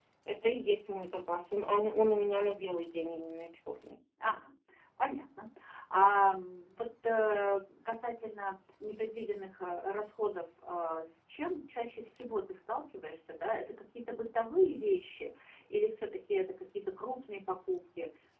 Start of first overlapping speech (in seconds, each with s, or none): none